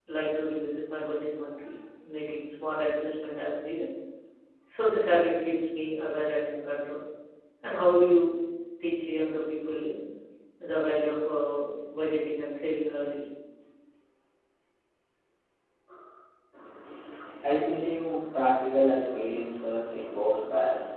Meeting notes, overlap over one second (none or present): none